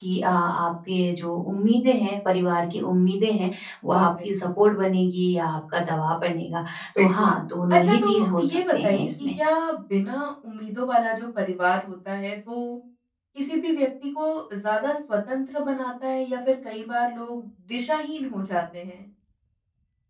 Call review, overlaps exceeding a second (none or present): present